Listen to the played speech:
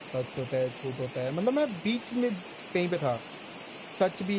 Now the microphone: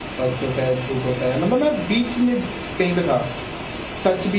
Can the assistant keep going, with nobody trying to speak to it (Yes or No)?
Yes